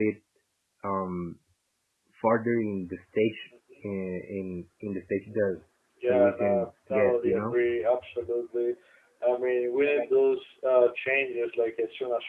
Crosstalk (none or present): present